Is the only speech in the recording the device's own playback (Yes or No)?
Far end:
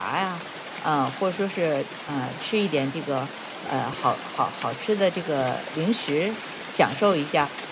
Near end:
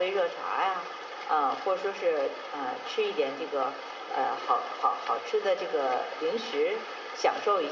Yes